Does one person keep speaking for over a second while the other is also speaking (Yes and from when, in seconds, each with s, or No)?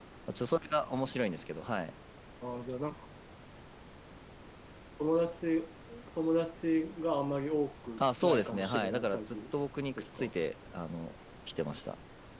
Yes, from 8.0 s